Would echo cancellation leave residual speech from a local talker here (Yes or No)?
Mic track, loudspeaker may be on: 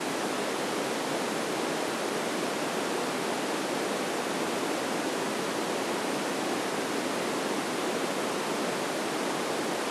No